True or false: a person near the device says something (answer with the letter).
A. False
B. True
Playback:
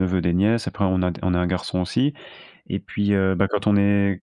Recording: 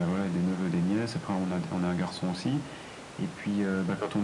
A